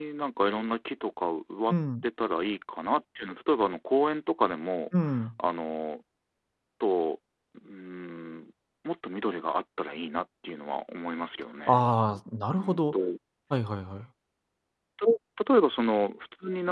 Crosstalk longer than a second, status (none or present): none